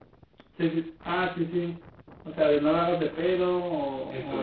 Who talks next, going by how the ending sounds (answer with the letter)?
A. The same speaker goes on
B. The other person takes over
B